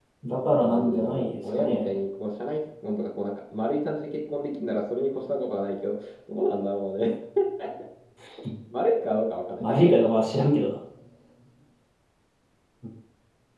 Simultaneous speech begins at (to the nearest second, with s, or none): 1 s